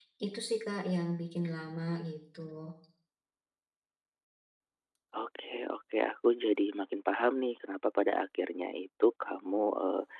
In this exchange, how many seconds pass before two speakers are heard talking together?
none

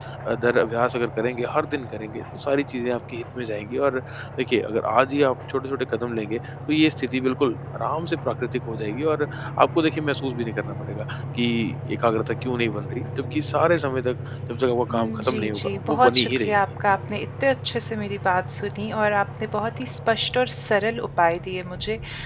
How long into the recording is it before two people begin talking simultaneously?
15 s

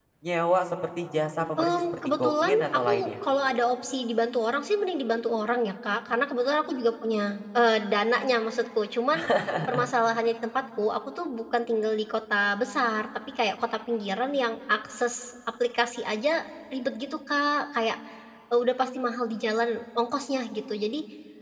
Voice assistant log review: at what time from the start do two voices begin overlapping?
2 s

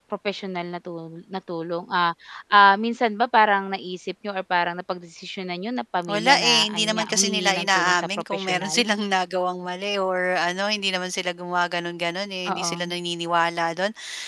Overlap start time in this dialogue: 6 s

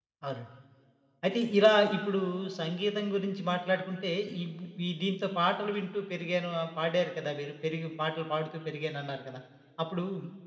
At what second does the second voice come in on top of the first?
none

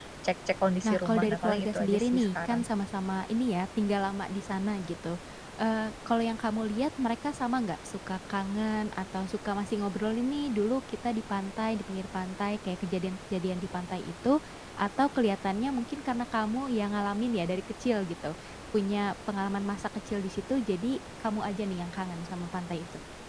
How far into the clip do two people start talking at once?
1 s

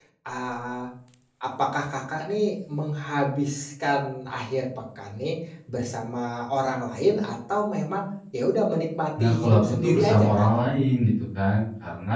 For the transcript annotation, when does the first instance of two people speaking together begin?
9 s

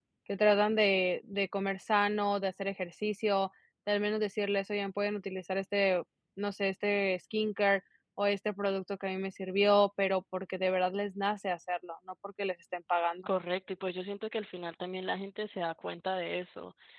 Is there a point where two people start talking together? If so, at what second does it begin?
none

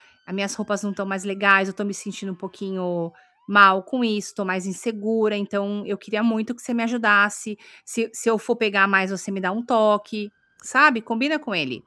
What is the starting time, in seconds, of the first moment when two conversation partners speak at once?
none

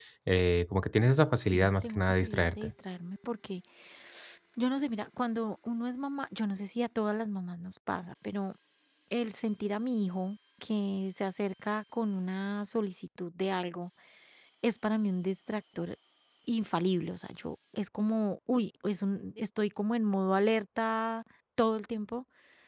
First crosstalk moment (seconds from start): 1 s

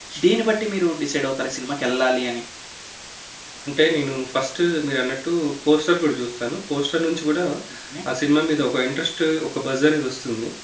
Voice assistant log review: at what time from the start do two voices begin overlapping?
none

